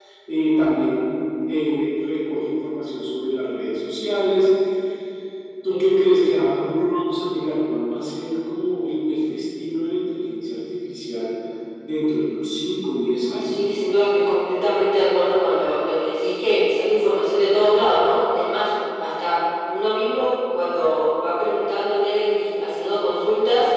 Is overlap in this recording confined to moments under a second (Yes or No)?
Yes